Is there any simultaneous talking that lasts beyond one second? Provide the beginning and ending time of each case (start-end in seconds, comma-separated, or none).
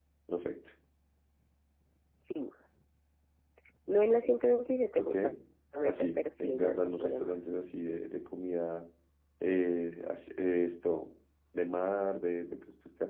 5.8-7.3